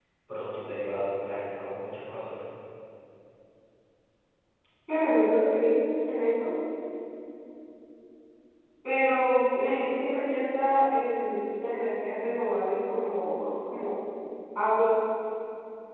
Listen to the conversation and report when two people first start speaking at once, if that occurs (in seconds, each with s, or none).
none